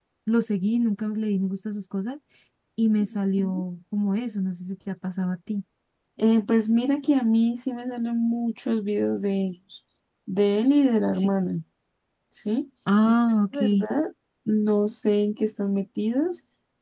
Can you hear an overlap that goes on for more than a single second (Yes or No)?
No